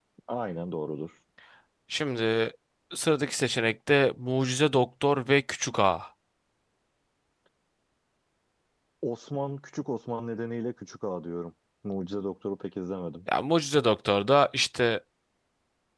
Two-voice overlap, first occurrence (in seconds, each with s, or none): none